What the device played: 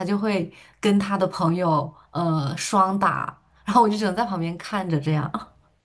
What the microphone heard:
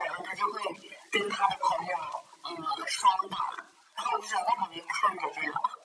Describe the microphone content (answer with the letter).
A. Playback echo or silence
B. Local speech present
A